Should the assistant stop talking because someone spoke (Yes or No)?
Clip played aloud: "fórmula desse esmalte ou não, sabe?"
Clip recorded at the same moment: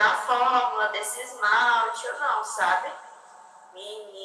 No